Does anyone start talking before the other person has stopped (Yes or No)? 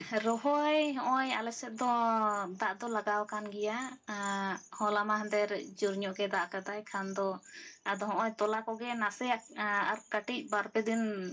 No